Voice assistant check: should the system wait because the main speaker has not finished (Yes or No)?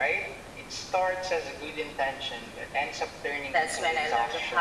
No